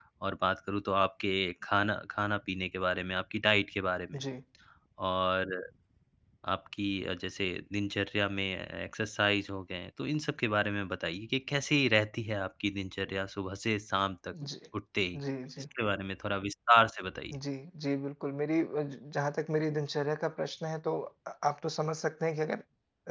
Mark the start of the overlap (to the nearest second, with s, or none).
none